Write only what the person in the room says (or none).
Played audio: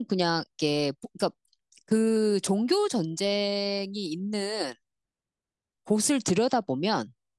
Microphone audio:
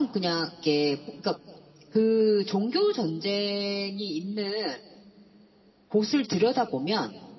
none